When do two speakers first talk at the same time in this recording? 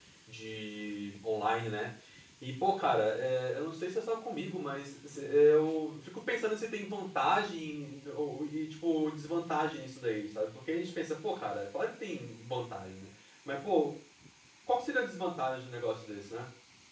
none

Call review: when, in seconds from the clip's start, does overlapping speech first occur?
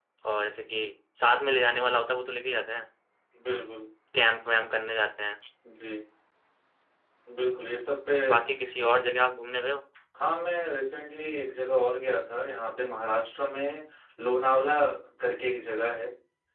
none

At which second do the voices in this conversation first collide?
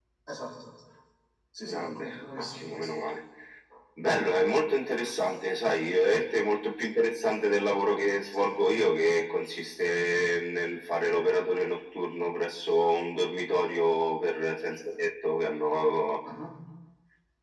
1.6 s

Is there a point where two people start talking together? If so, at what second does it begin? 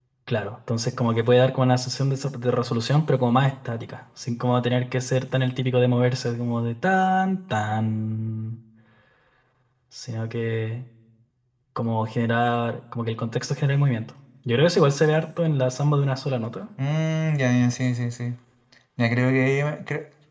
none

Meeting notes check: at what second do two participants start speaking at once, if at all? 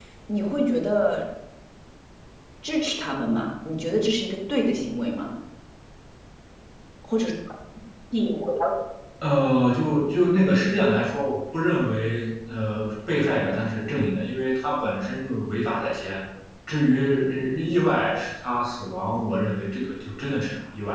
none

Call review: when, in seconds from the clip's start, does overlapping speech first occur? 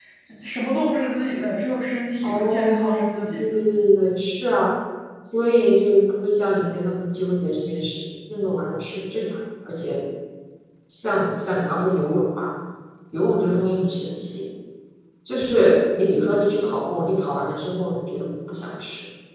2.2 s

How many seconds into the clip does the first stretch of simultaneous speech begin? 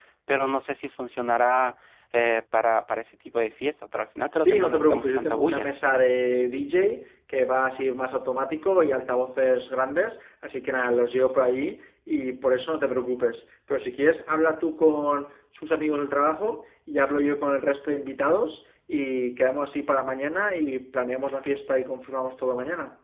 4.4 s

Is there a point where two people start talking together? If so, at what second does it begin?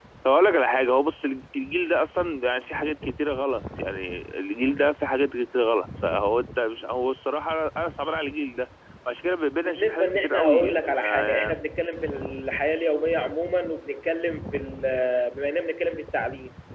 9.6 s

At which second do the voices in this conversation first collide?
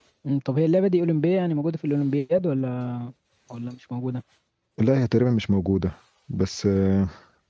none

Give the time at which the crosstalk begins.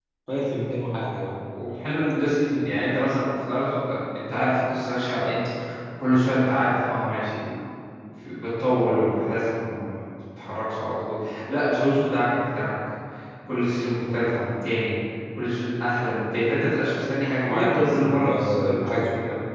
17.5 s

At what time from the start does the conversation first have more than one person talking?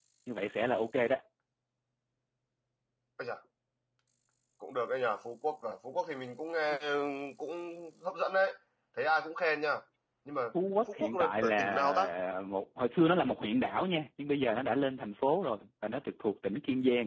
10.9 s

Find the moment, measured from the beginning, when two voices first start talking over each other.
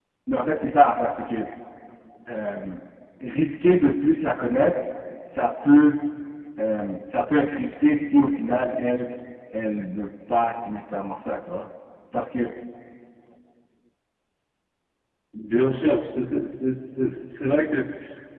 none

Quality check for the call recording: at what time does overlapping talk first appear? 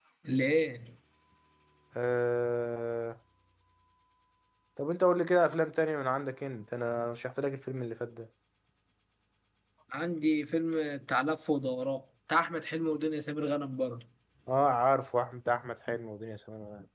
none

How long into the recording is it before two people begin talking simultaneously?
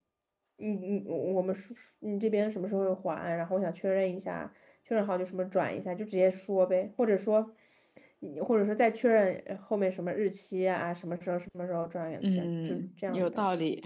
12.2 s

